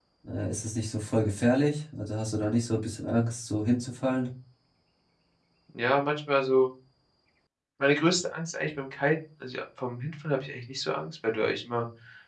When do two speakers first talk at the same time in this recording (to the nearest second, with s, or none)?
none